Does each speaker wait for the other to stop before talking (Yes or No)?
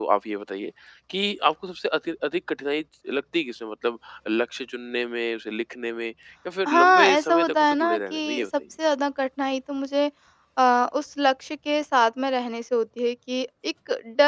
No